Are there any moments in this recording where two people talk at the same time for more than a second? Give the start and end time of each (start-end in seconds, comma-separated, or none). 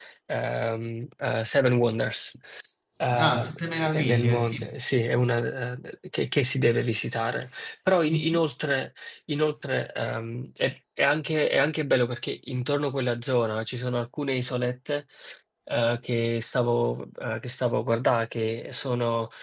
3.1-4.7